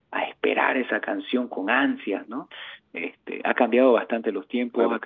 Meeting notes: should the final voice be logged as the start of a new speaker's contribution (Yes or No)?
Yes